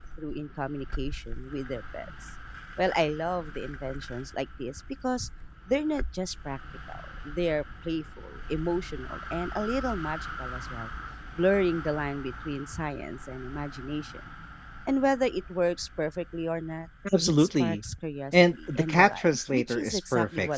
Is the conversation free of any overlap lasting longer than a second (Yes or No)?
No